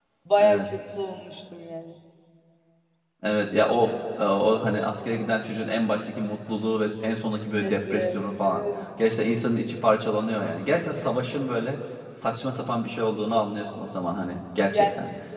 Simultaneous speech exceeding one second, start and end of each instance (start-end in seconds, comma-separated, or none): none